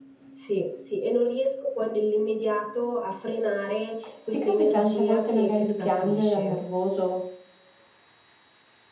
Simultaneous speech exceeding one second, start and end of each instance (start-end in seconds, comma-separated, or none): 4.3-6.6